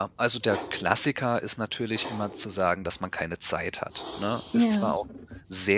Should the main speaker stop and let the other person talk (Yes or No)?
No